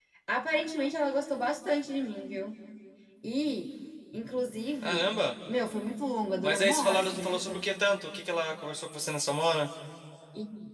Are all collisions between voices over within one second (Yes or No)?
No